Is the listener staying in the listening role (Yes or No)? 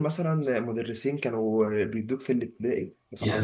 No